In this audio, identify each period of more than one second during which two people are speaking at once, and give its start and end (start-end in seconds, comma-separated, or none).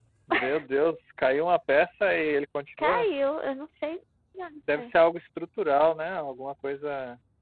none